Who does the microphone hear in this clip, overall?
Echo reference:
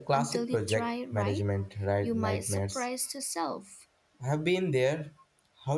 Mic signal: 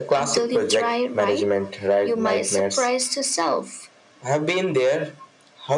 echo only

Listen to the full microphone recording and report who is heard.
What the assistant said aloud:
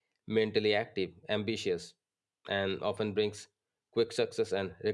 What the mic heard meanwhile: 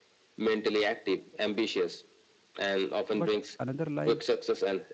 both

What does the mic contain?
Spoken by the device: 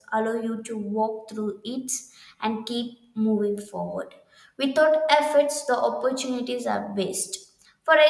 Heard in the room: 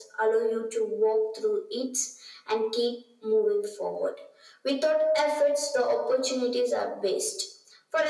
echo only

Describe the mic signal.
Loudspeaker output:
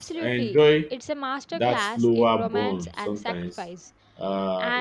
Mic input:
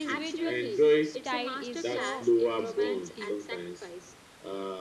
both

